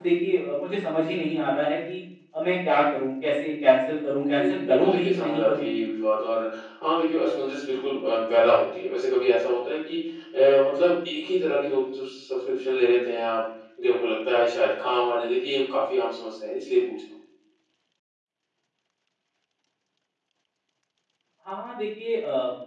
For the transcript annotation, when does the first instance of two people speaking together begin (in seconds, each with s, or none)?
4.4 s